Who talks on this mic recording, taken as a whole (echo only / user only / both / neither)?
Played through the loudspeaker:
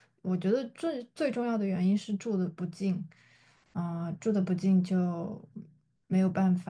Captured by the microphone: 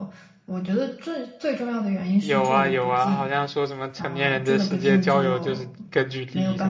both